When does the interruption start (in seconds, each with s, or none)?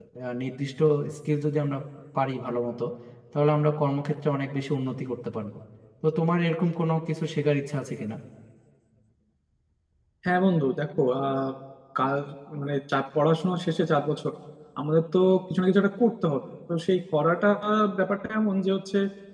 none